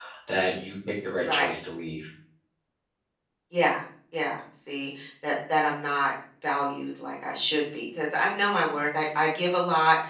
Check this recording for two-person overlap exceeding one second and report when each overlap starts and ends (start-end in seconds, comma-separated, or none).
none